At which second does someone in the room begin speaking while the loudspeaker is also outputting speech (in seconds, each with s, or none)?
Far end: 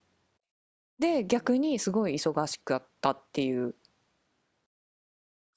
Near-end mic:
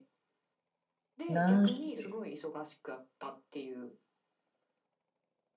1.3 s